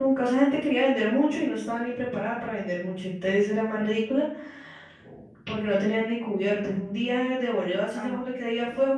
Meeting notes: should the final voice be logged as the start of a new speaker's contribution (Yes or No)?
No